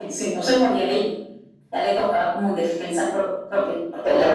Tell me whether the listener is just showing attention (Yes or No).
No